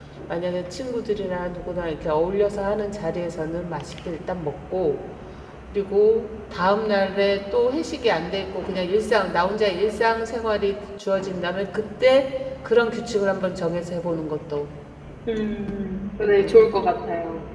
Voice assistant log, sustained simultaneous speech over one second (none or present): none